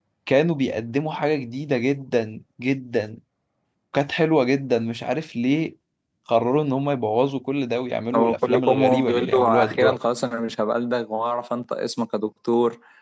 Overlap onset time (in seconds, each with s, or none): 8.1 s